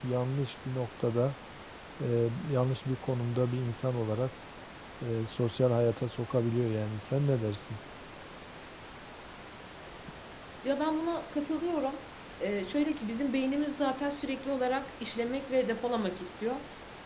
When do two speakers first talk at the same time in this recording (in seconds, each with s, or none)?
none